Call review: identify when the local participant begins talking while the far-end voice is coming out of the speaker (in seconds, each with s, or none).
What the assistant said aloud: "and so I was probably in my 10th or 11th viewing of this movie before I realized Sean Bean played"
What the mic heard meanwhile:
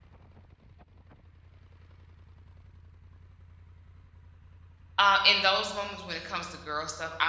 5.0 s